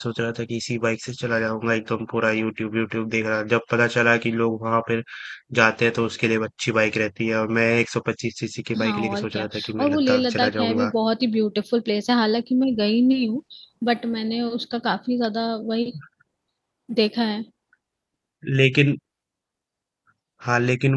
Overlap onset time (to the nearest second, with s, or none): 9 s